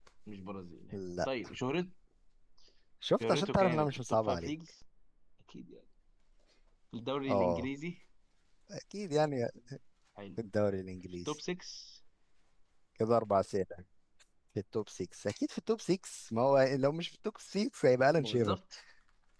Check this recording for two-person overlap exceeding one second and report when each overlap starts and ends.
3.2-4.5

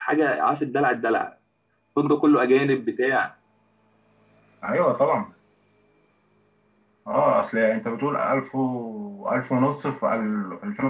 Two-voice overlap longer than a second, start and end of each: none

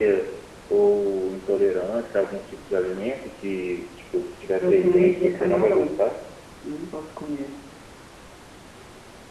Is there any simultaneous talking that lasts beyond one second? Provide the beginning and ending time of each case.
4.6-5.9

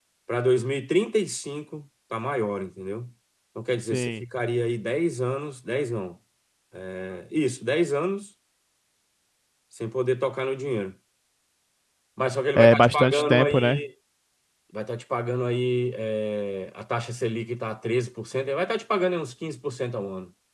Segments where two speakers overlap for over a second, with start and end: 12.6-13.8

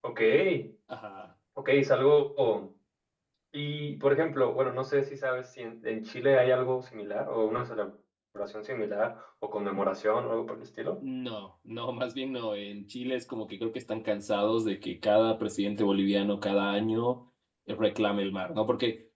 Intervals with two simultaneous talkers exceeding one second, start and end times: none

